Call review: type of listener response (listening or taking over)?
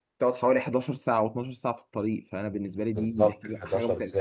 taking over